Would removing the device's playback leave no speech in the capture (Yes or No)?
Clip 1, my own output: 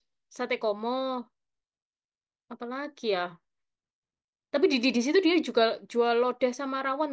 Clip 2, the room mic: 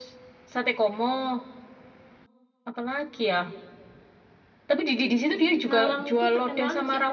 No